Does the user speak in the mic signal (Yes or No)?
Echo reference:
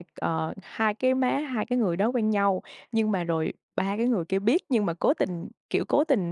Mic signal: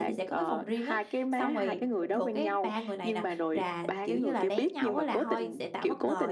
Yes